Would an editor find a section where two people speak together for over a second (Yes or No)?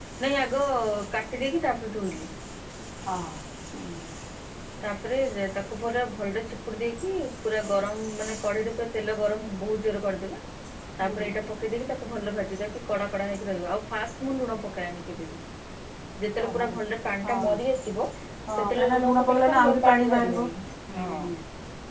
Yes